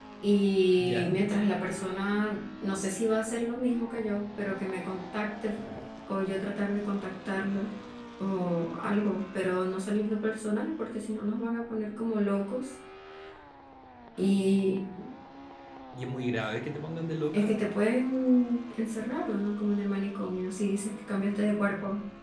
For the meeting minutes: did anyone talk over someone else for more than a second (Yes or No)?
No